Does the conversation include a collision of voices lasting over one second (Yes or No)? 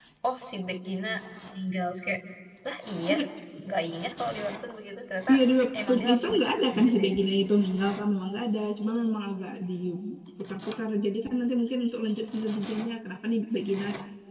Yes